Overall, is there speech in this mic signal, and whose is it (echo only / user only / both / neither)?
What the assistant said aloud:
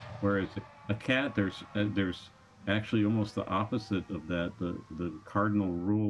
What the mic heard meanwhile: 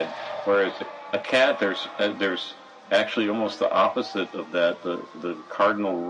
echo only